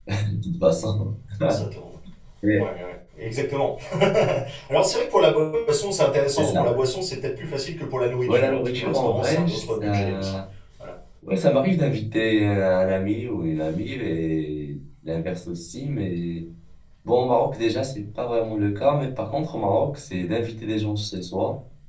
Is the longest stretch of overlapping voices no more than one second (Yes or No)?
No